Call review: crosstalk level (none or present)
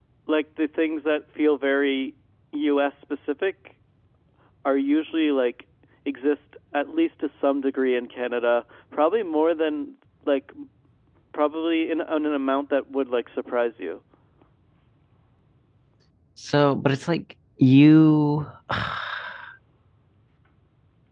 none